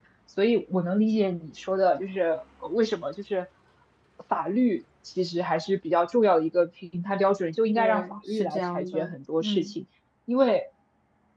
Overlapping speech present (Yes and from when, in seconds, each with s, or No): Yes, from 7.8 s